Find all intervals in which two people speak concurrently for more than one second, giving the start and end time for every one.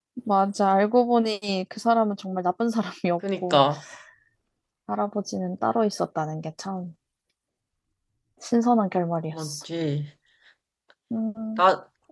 none

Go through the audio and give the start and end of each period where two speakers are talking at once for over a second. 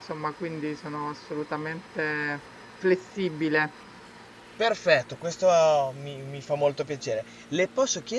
none

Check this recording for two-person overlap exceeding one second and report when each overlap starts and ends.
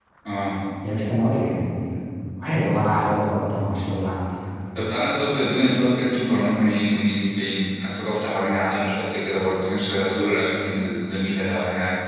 none

